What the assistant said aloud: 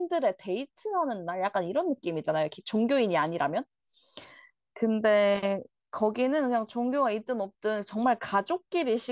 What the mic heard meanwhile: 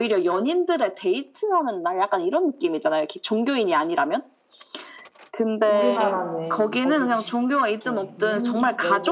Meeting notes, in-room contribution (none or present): present